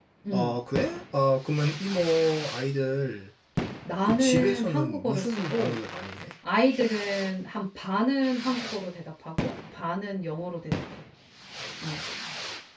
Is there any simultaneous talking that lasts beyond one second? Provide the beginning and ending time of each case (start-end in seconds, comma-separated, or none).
4.0-5.8